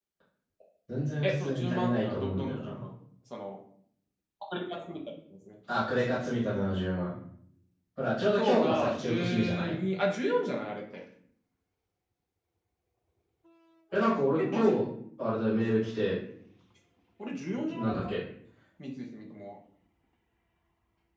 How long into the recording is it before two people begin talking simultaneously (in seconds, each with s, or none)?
1.2 s